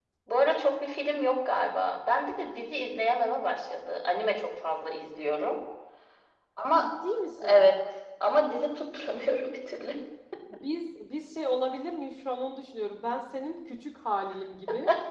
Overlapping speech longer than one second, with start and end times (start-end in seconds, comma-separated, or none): none